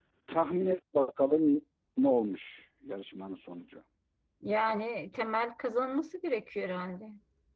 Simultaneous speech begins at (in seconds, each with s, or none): none